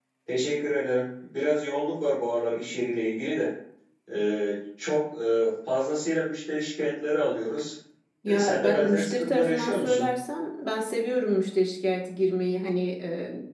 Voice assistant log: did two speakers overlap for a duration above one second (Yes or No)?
Yes